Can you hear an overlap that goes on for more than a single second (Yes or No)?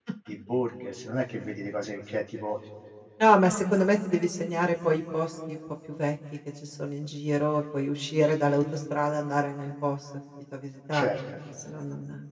No